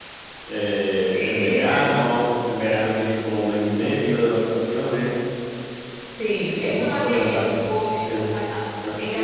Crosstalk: present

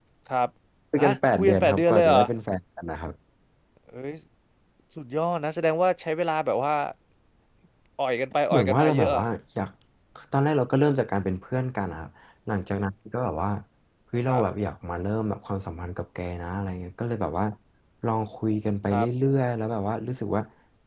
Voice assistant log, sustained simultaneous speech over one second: present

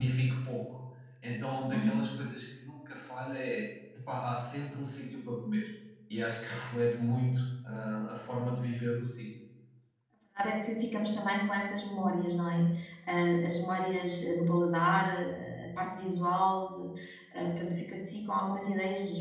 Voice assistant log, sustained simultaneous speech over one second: none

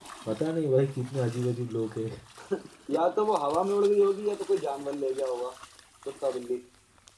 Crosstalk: none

